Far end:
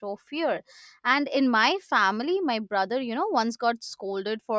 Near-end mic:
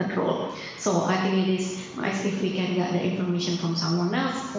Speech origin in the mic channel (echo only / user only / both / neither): user only